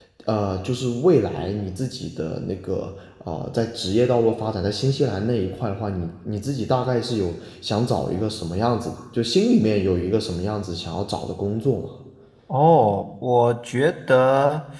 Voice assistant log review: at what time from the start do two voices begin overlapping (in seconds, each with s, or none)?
none